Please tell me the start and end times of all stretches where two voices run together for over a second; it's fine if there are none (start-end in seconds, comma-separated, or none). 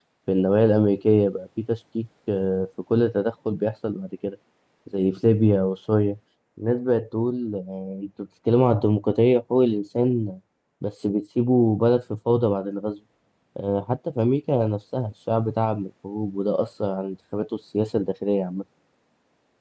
none